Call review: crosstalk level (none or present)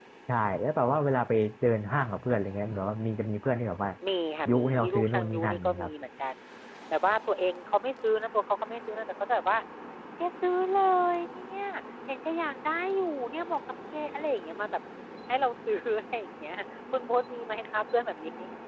present